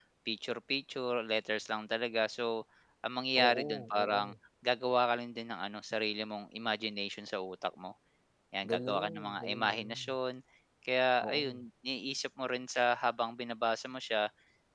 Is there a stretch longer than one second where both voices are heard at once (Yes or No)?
Yes